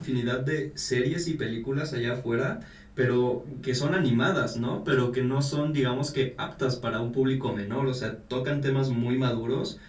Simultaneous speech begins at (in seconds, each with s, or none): none